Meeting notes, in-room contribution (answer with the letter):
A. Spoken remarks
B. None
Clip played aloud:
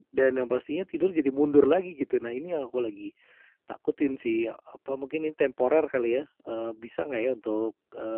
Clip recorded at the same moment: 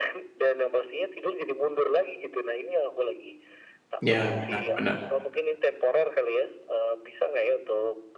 A